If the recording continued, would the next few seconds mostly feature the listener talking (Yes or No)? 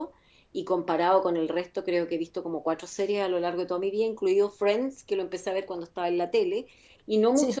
No